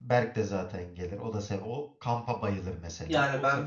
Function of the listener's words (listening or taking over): taking over